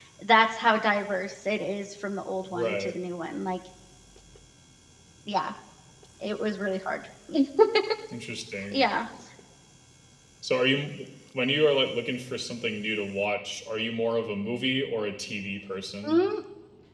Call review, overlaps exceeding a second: none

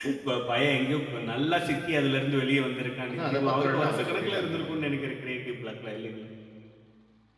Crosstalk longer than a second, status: present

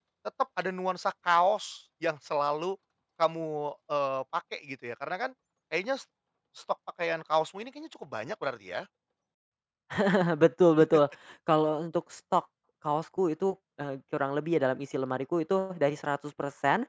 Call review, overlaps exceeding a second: none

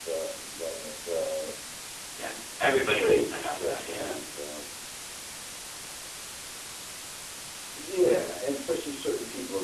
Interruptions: present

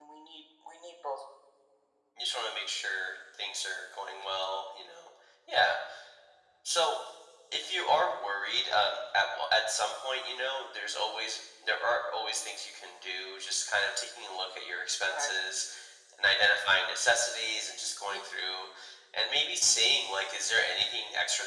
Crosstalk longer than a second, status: none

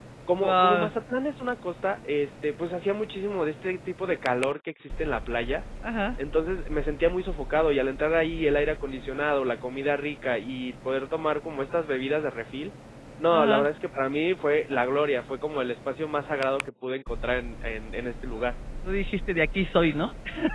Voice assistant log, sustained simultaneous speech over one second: none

